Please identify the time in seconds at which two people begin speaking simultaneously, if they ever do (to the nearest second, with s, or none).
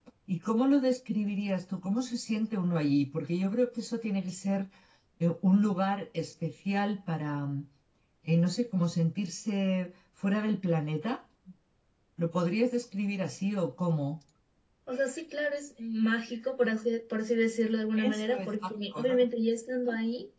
18 s